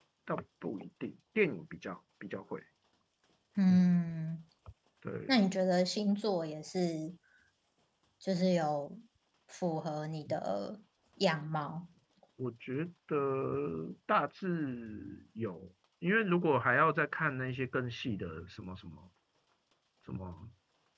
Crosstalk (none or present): none